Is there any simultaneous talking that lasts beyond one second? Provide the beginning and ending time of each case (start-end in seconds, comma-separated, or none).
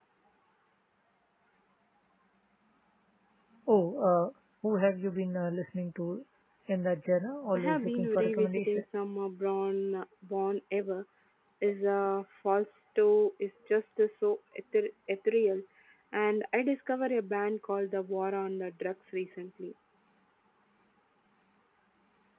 7.5-8.8